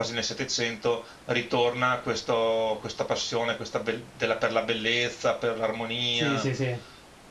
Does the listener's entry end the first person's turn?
Yes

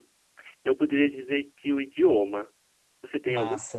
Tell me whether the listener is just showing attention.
No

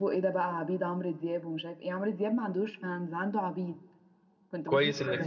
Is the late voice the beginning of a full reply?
Yes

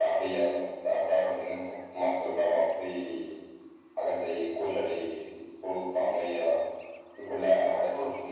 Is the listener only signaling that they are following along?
Yes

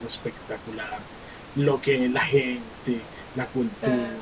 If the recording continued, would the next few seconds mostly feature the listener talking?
No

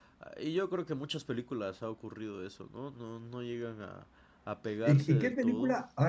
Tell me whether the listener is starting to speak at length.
Yes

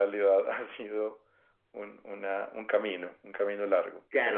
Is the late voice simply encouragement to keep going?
No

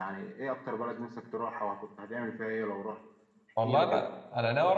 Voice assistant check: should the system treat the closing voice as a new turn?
Yes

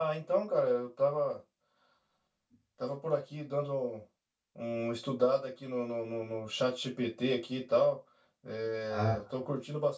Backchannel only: Yes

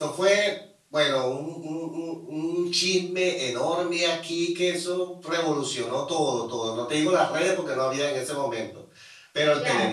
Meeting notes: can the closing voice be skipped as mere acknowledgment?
No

